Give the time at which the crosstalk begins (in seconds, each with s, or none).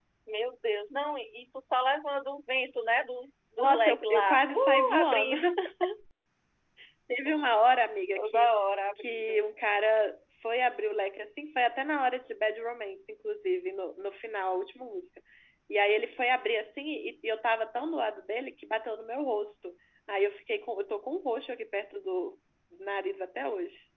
3.6 s